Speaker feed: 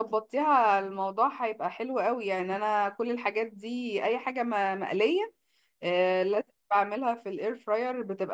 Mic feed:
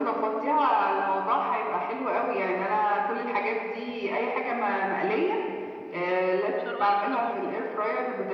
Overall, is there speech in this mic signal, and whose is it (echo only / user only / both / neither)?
both